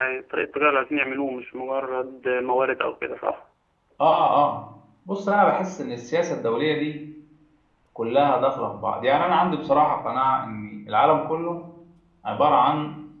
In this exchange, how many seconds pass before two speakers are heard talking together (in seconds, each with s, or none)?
none